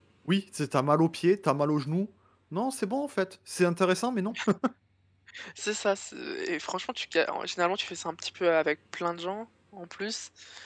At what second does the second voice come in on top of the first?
none

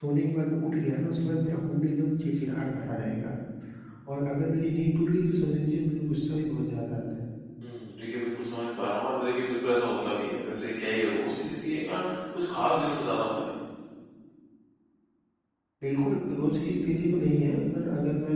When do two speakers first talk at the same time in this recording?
none

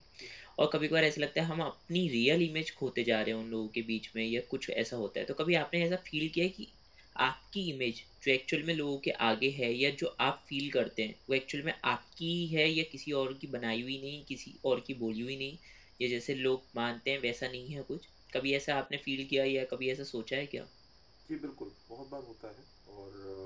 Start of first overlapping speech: none

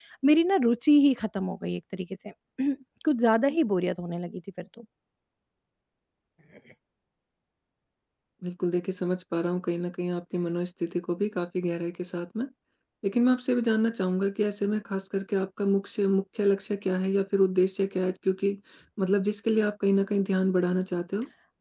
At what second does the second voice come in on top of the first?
none

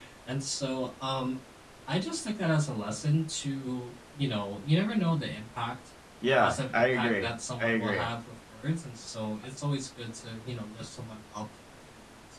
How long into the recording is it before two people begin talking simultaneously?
6.4 s

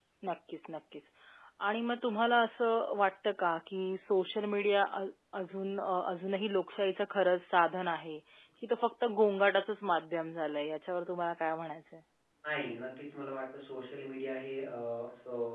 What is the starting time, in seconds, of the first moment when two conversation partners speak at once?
none

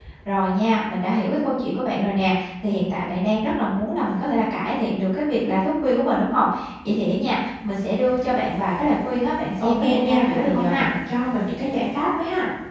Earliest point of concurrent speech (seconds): 9.6 s

